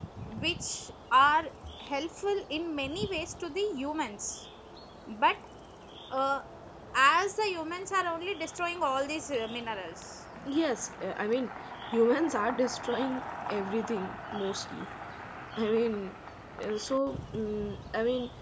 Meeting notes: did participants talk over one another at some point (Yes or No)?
No